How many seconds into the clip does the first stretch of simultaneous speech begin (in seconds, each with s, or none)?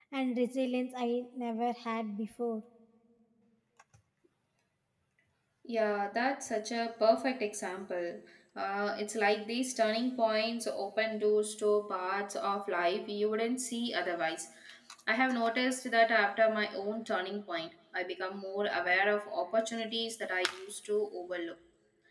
none